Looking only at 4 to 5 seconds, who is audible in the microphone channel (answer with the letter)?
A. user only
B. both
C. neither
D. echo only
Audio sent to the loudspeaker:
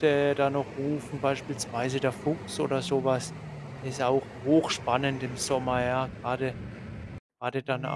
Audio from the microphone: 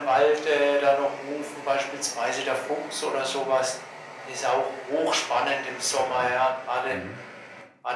D